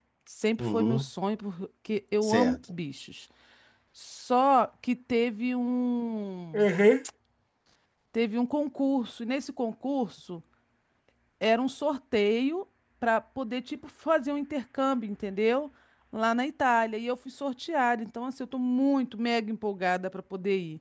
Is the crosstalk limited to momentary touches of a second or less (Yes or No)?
Yes